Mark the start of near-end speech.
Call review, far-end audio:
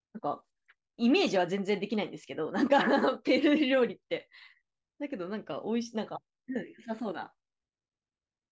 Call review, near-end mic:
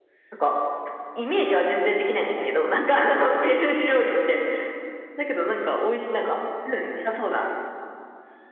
none

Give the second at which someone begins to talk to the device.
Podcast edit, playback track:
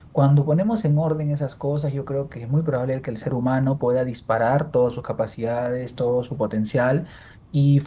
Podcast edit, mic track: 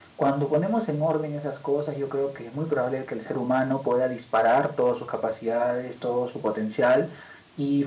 none

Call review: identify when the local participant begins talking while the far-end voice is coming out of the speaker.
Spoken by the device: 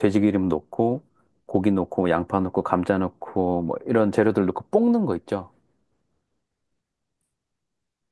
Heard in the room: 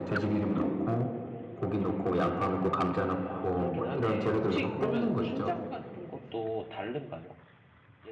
3.2 s

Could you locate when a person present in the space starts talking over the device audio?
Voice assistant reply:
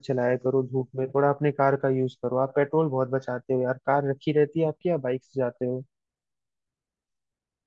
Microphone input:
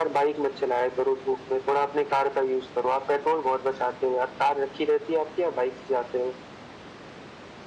none

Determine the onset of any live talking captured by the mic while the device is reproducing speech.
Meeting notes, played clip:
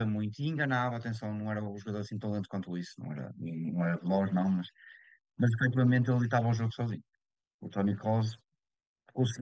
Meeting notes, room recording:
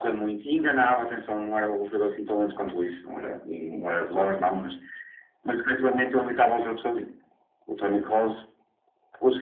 none

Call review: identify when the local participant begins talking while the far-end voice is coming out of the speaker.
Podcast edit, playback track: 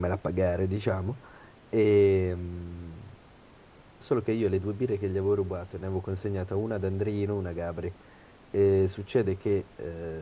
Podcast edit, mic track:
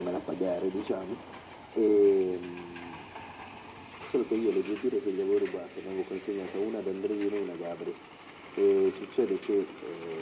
none

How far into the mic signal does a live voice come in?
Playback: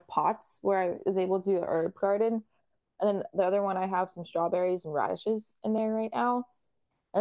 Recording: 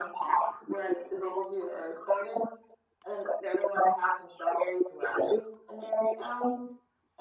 none

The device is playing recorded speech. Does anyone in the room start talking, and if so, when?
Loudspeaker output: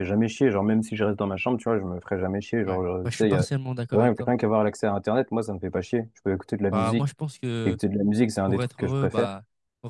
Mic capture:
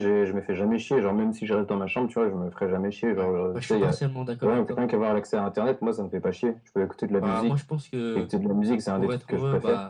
none

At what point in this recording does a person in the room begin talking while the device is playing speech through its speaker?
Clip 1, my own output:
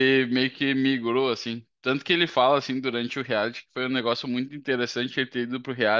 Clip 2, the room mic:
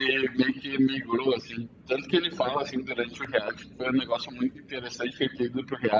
none

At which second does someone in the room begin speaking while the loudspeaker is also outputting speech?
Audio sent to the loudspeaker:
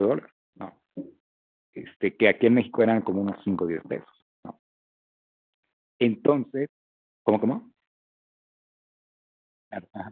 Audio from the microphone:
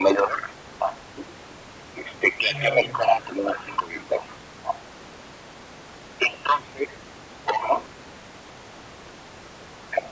2.5 s

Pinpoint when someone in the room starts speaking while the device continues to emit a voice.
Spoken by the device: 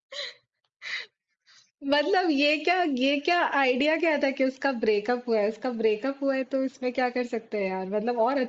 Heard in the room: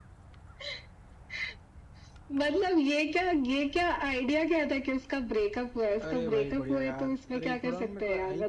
6.0 s

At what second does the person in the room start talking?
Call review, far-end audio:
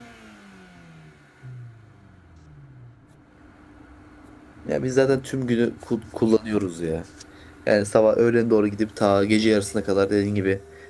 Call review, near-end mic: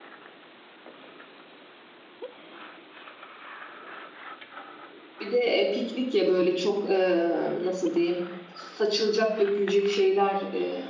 5.2 s

